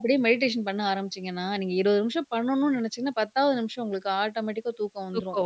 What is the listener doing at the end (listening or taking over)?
listening